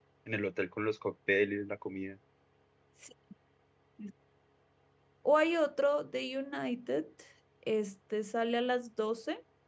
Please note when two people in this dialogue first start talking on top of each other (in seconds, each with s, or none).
none